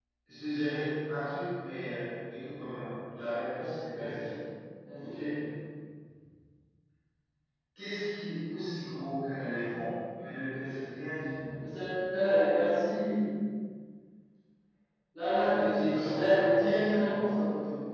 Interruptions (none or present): present